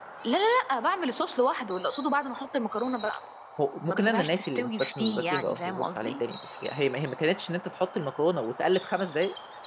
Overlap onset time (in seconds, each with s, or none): 3.9 s